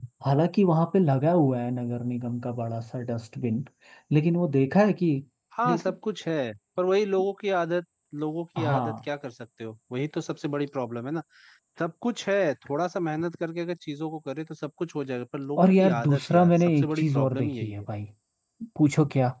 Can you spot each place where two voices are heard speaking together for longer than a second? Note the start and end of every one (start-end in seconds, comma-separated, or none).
15.6-17.9